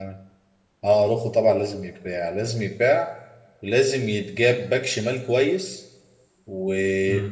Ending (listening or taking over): listening